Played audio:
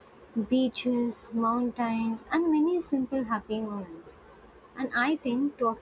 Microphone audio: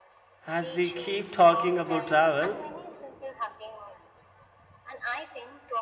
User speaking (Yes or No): Yes